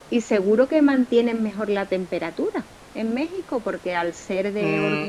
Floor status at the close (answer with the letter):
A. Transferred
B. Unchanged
A